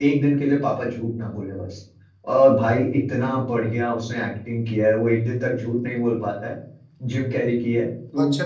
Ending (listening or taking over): taking over